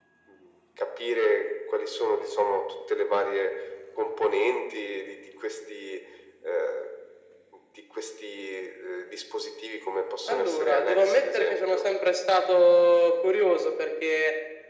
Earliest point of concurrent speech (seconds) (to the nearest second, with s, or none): 10 s